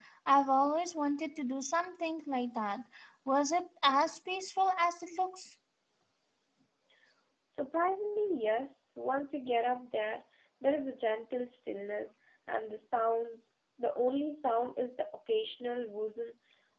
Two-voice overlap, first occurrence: none

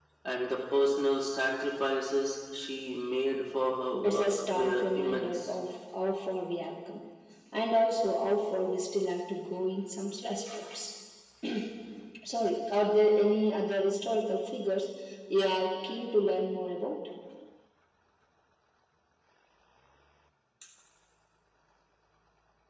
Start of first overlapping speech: 4 s

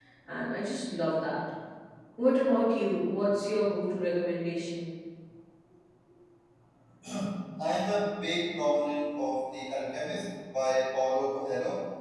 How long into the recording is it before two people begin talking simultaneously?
none

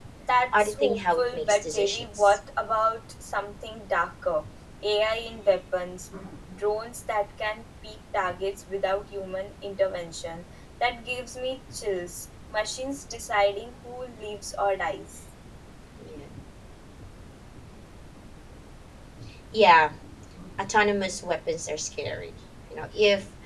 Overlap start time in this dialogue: 1 s

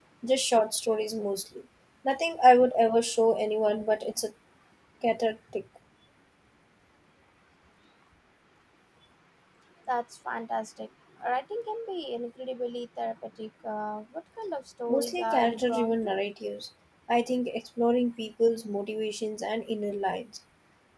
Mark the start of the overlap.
15 s

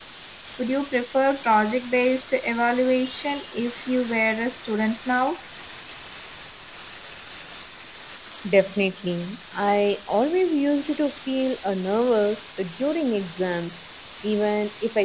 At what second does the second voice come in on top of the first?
none

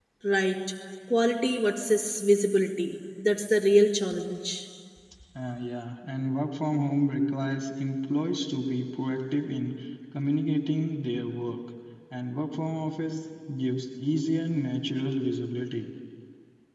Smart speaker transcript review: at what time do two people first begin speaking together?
none

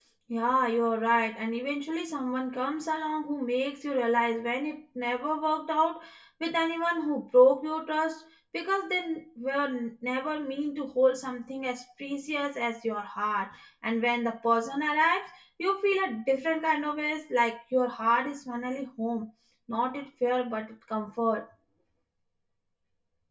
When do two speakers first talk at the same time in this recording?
none

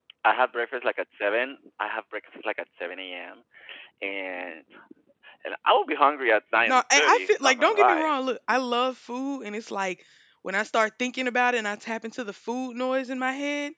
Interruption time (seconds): 7 s

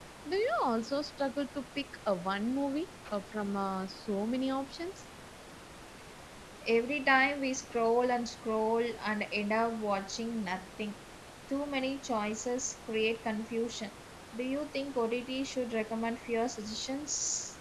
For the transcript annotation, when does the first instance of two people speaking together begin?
none

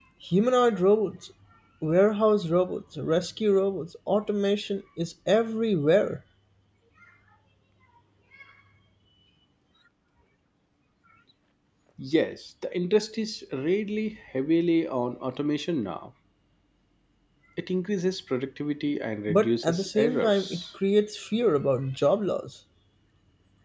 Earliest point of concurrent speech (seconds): 19 s

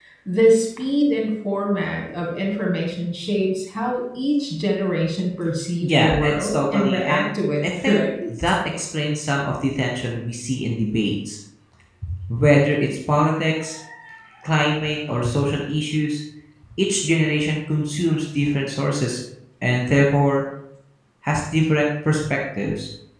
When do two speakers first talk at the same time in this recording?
6 s

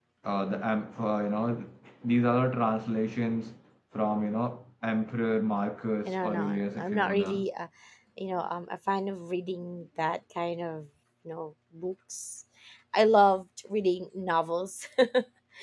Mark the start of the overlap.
6 s

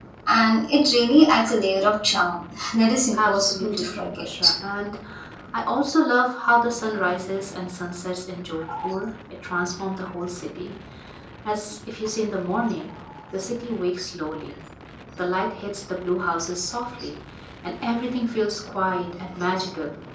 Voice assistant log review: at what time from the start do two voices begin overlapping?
3 s

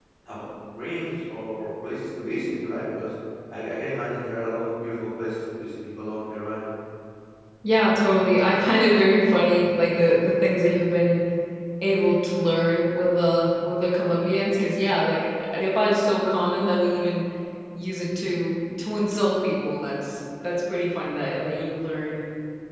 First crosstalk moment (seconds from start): none

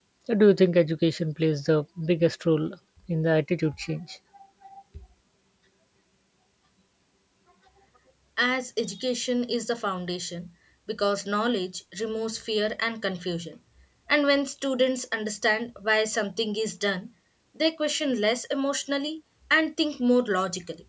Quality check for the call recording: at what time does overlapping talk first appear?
none

